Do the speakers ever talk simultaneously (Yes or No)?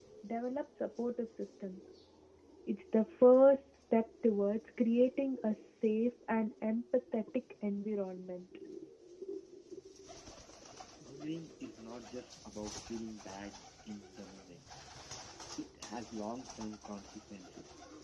No